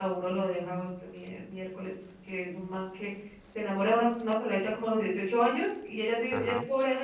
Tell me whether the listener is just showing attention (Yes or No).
Yes